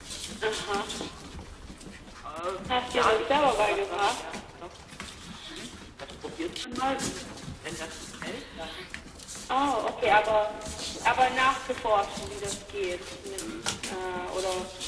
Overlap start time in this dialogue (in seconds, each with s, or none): 2.8 s